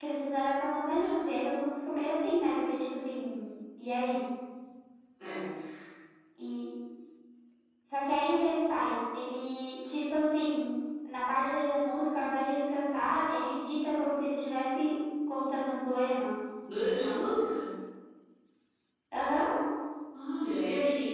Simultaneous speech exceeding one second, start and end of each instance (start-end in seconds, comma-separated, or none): none